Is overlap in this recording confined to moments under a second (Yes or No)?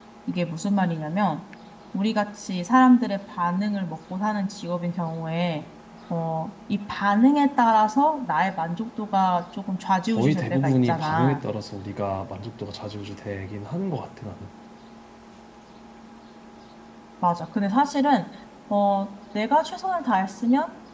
No